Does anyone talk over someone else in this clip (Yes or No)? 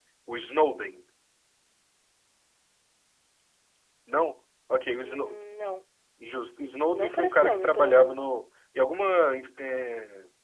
Yes